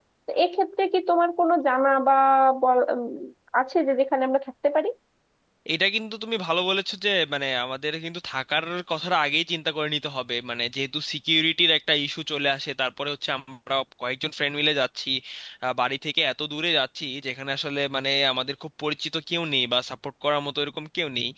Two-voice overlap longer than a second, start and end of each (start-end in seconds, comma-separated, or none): none